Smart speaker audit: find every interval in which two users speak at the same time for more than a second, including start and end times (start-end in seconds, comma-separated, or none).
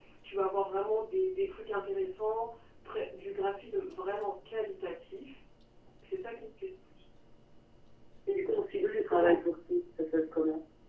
none